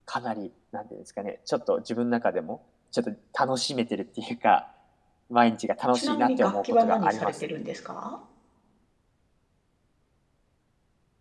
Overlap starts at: 5.9 s

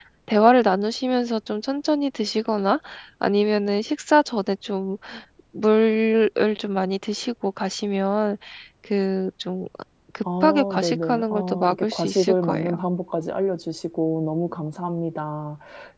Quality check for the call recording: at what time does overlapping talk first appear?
10.4 s

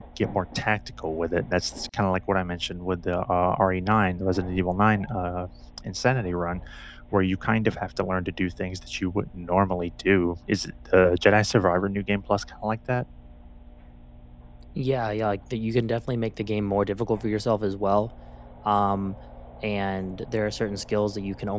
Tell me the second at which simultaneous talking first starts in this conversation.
none

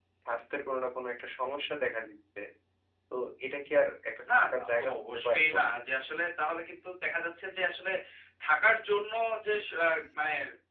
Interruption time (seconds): 4.3 s

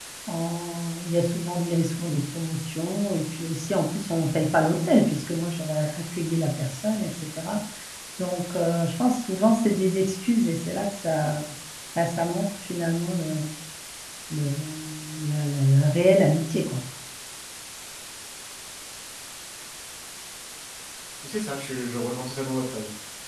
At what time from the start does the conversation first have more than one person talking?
none

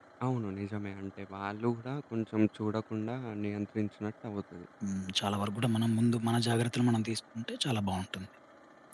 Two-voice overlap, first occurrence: none

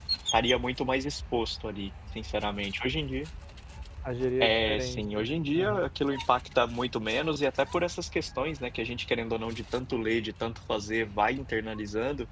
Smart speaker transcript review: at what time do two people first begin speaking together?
4.4 s

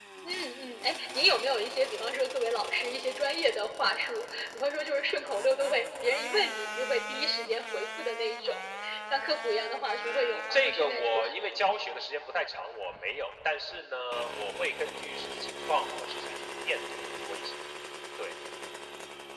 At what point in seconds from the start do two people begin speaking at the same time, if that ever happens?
10.0 s

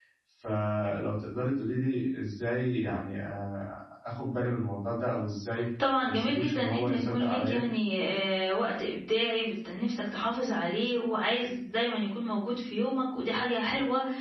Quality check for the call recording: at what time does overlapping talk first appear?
6.0 s

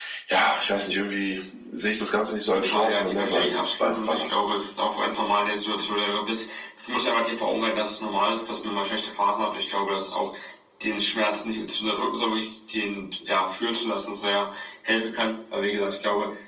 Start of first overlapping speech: 2.5 s

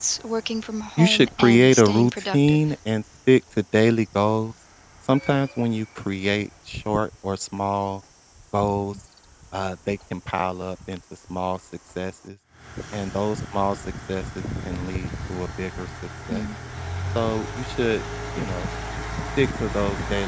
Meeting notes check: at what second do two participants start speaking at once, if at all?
1.0 s

